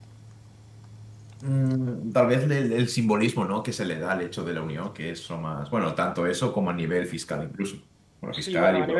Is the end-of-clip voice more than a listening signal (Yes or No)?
Yes